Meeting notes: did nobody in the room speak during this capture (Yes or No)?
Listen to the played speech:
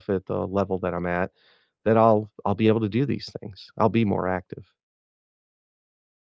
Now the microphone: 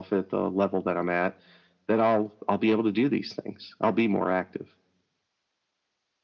Yes